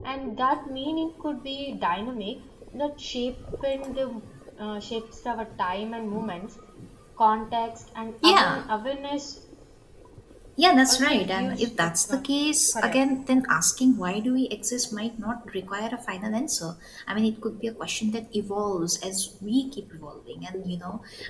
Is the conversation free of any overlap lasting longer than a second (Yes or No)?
No